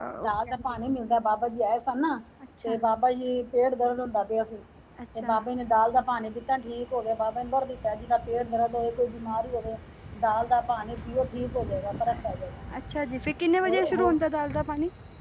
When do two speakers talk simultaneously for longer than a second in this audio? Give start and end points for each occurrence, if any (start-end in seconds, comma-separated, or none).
none